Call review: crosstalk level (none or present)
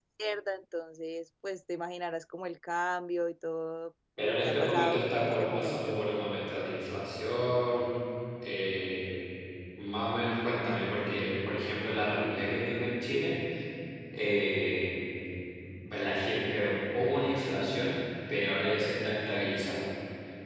present